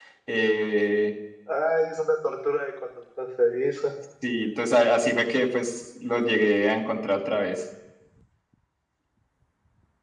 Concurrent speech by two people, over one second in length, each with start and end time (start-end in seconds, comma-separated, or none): none